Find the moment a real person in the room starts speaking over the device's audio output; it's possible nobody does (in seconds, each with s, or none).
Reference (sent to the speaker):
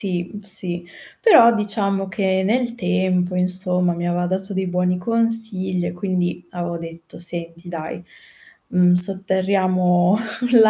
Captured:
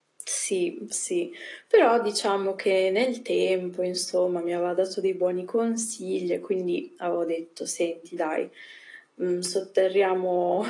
none